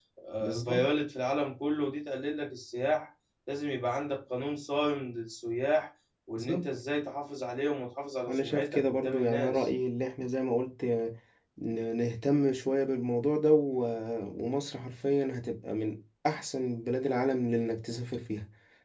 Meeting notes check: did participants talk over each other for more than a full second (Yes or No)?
Yes